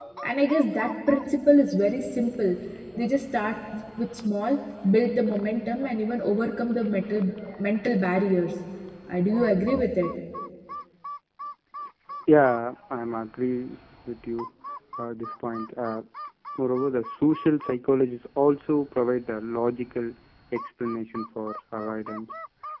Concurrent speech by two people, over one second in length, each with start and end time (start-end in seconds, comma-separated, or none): none